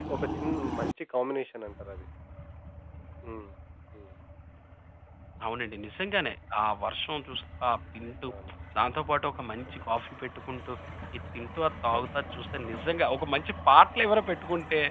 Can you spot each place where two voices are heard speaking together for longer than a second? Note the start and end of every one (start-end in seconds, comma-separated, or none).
none